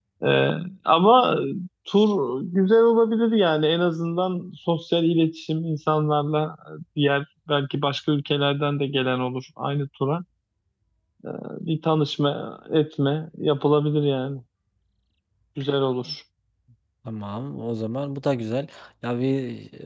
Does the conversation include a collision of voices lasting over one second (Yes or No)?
No